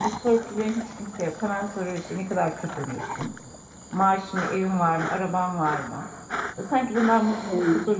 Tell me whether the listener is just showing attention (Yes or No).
No